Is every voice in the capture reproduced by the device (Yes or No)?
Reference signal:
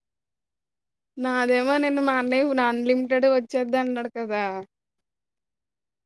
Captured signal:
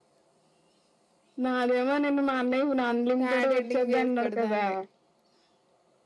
No